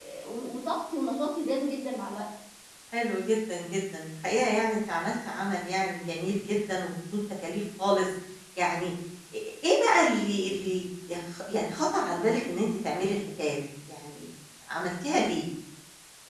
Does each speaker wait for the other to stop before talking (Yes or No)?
Yes